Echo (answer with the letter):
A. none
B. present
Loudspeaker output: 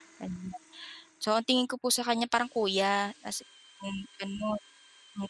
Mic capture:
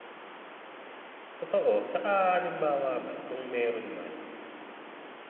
A